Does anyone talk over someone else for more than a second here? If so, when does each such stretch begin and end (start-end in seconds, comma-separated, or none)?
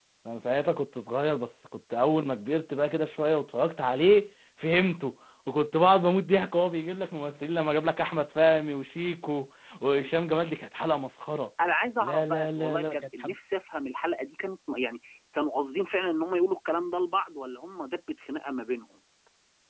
12.0-13.3